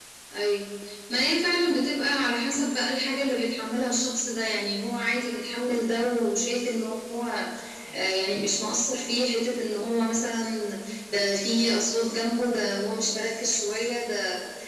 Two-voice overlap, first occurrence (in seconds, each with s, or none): none